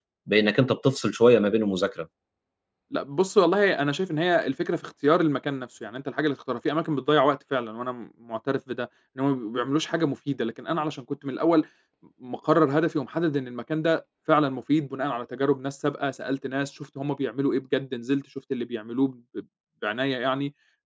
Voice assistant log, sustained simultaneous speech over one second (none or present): none